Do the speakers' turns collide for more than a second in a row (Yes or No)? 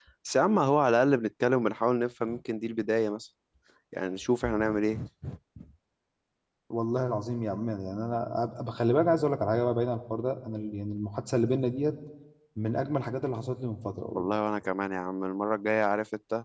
No